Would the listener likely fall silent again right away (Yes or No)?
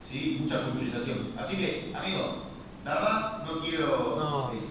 Yes